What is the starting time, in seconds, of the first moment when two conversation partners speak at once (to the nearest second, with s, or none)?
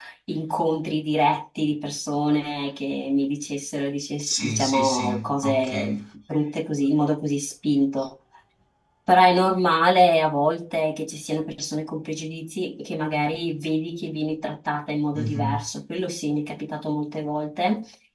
4 s